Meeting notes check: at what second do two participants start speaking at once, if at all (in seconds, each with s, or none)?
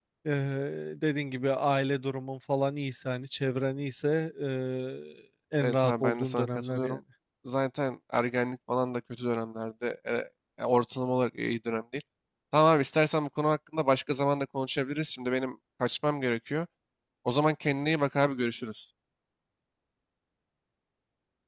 5.6 s